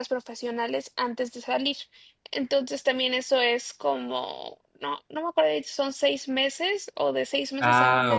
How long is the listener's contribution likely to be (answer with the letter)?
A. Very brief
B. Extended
B